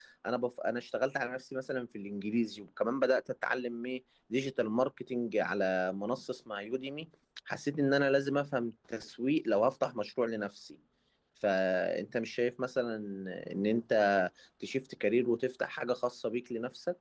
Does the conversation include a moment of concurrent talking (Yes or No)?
No